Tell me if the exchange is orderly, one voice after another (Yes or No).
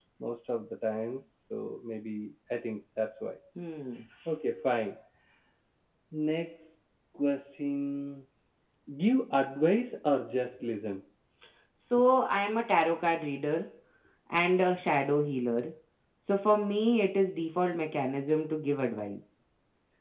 Yes